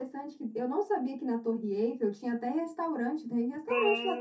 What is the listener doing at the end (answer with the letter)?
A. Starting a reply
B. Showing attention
A